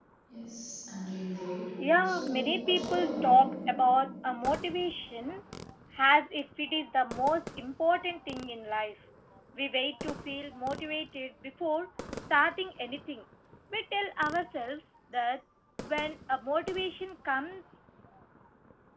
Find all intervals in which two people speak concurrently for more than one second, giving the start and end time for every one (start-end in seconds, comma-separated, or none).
2.0-3.4